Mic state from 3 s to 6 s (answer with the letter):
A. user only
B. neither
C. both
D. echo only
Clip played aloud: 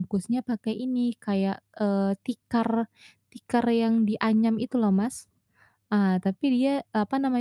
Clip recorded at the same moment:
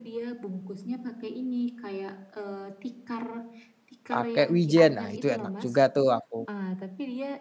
C